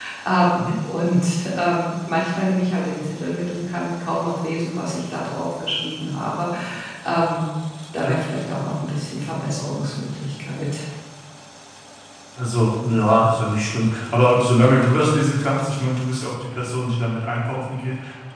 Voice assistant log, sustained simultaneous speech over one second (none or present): none